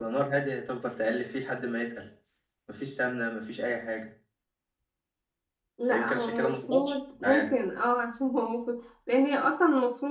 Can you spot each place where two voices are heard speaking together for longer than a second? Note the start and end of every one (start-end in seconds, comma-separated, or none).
5.9-7.5